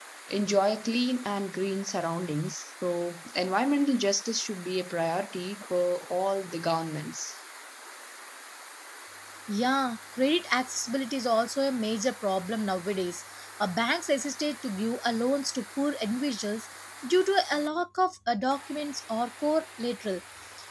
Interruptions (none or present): none